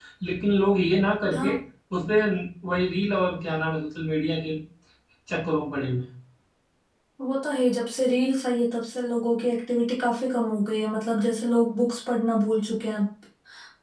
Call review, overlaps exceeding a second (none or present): none